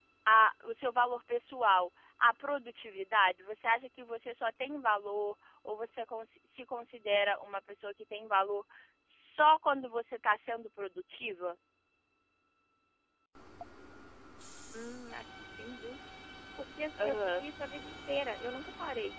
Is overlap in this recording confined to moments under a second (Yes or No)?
Yes